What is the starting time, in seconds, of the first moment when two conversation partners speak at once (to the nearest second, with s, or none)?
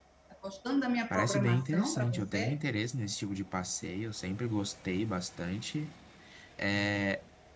1 s